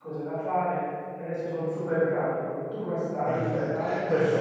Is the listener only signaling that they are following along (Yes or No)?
No